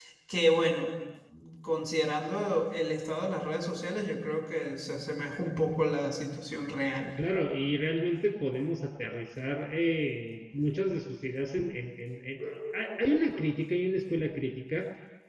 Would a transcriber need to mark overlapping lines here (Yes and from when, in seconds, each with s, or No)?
No